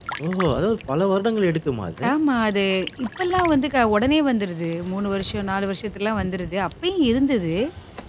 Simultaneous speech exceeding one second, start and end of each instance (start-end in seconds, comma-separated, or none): none